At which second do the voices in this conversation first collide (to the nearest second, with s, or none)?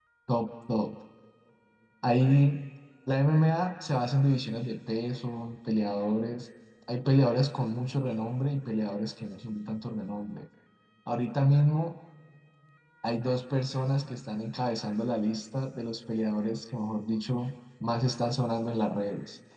none